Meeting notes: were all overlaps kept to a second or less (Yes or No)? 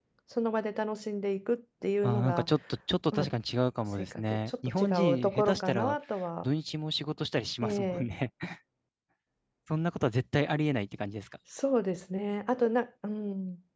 No